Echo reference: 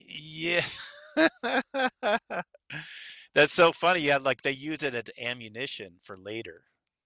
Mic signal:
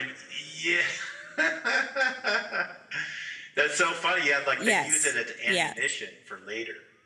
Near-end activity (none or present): present